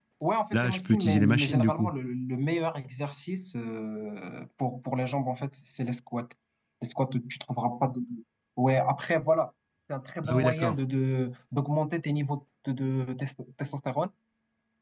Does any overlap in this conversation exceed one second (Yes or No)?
Yes